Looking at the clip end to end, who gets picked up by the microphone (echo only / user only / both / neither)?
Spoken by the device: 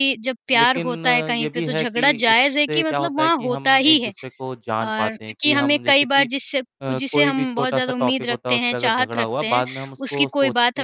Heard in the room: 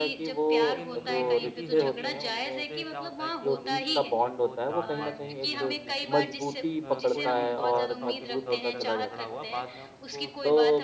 both